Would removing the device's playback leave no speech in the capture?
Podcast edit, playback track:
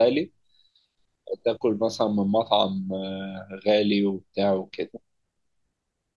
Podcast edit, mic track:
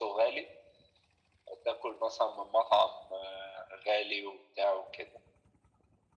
Yes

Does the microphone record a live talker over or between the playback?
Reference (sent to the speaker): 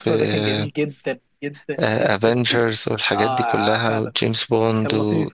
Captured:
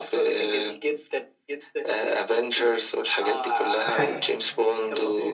Yes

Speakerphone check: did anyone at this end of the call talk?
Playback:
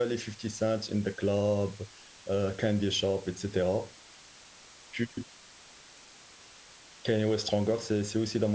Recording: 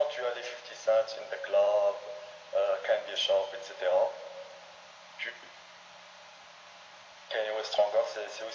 No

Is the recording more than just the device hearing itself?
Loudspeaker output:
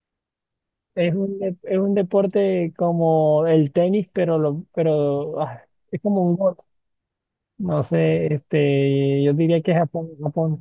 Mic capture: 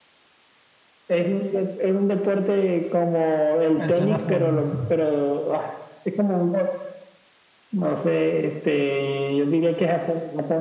Yes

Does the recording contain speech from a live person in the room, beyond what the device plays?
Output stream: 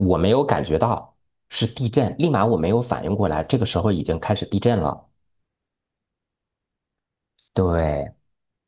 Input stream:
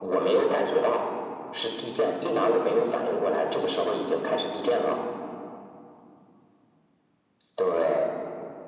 No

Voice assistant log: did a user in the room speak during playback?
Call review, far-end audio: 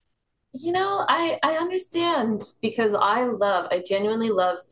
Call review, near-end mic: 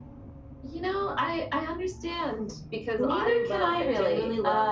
Yes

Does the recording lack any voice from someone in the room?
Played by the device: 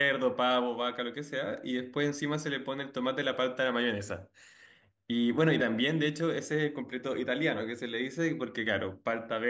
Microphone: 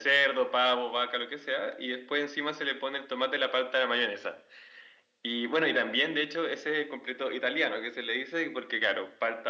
Yes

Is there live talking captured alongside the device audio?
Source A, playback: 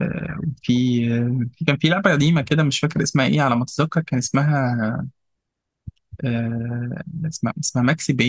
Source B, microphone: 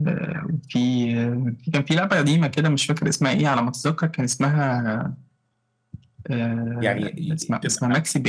Yes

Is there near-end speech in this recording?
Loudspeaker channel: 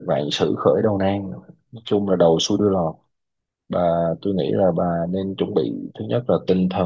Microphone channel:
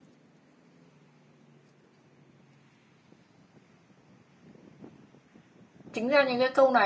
Yes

